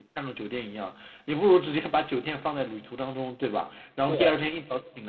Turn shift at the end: No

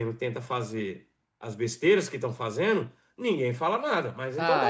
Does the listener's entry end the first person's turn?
Yes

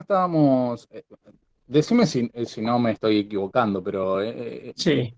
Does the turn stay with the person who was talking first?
Yes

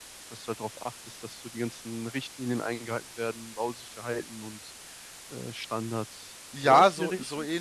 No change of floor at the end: No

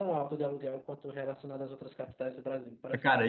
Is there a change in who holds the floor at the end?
Yes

